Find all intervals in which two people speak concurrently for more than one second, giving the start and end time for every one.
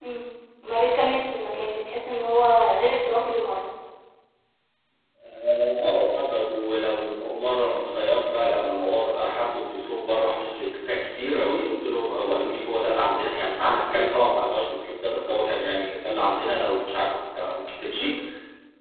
none

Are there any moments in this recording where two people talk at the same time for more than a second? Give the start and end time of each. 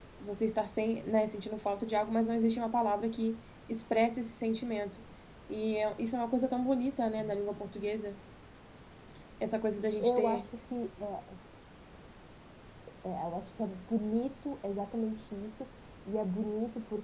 none

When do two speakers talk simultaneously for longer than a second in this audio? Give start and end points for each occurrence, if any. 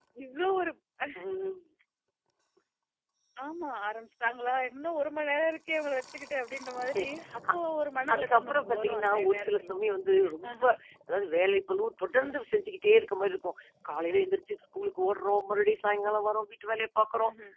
8.1-9.7

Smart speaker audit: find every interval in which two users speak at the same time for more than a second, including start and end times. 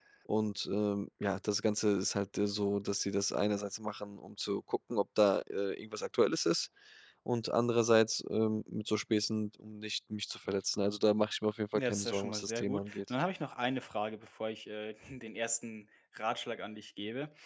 11.8-13.0

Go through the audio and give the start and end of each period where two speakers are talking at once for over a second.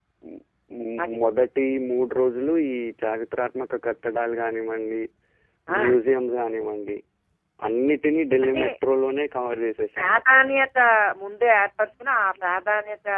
none

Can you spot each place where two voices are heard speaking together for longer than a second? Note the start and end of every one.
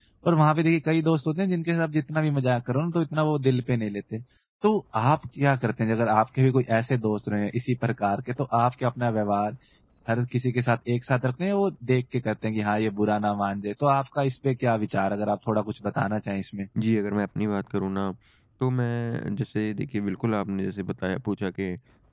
none

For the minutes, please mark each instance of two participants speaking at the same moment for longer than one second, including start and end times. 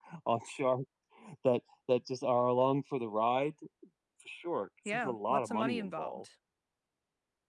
4.9-6.2

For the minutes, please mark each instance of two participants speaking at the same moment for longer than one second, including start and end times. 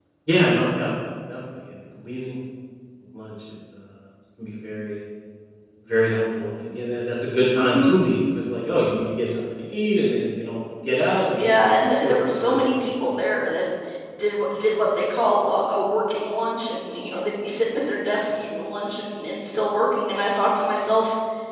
11.3-13.1

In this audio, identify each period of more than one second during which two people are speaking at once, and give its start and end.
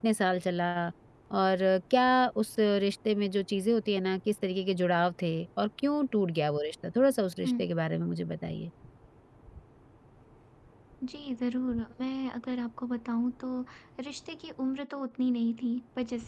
none

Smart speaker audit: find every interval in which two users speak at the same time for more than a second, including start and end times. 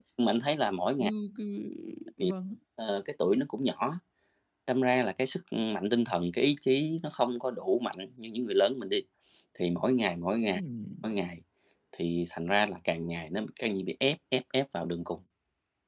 none

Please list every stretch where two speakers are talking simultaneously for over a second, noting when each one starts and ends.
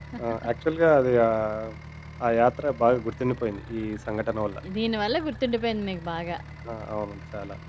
none

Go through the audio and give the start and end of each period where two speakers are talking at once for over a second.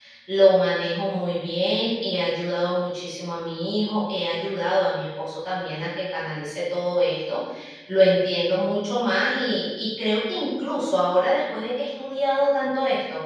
none

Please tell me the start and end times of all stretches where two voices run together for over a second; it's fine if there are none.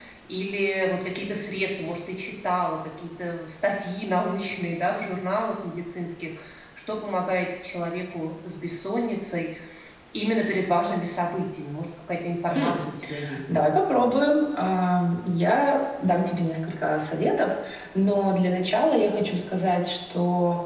none

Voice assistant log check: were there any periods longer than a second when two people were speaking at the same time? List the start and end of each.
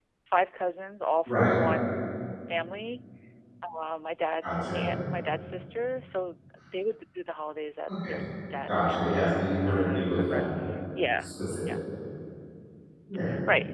8.7-10.4

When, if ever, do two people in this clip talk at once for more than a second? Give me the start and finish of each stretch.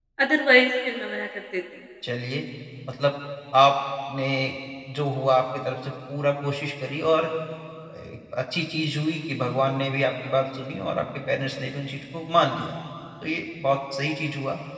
none

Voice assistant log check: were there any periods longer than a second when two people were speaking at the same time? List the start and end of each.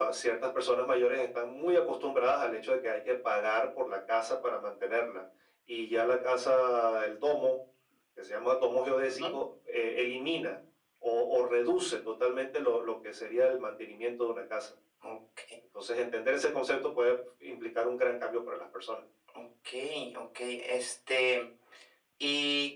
none

